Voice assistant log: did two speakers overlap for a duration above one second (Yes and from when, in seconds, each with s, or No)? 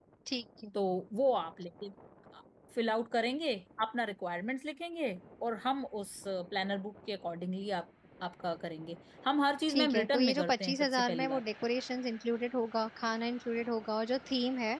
Yes, from 9.7 s